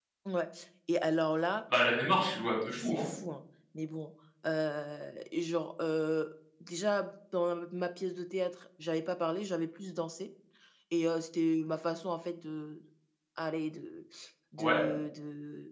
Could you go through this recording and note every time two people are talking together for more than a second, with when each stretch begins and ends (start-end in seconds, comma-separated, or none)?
none